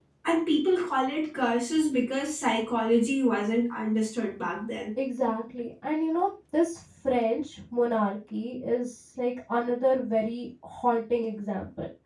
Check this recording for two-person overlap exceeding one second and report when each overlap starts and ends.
none

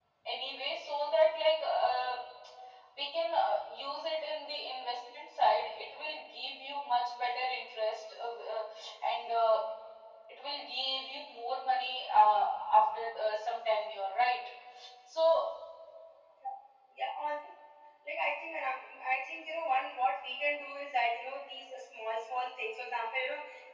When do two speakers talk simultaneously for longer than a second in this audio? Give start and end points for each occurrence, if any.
none

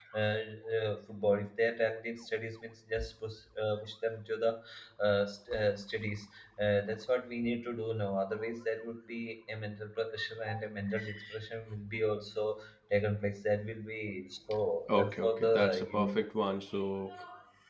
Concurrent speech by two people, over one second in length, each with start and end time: 14.9-16.2

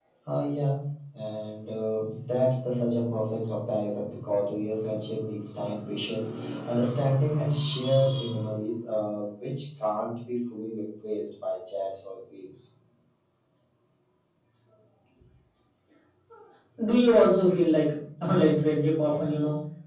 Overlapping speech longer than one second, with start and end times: none

